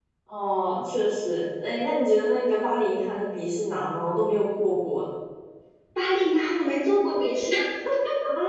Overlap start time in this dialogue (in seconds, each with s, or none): none